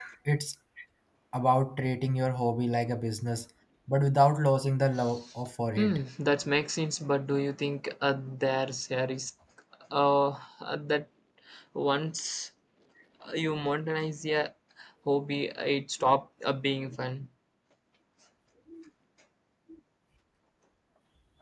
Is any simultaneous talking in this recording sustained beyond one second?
No

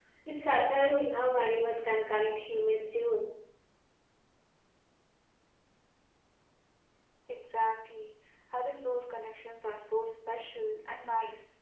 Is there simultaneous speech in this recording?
No

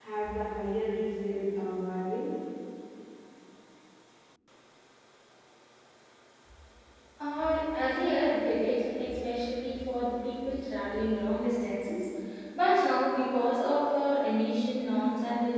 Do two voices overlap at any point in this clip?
No

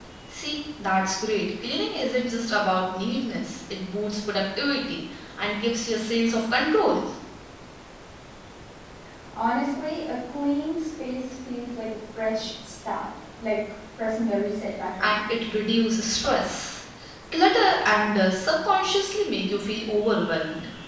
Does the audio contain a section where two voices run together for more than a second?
No

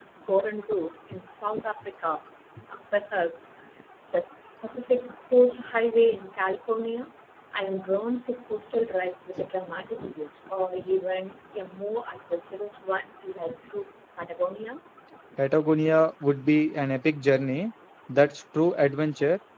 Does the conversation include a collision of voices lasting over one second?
No

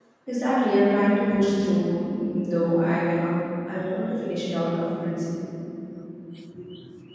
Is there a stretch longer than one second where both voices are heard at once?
No

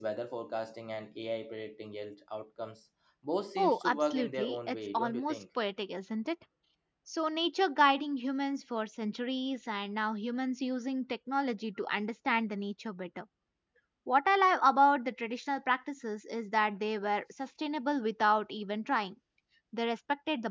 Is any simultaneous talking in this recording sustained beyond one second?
Yes, from 3.6 s

